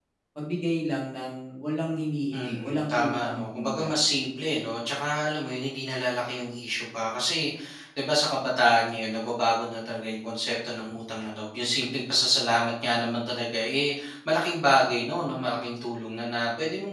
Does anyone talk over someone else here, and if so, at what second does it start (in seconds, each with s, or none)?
2.3 s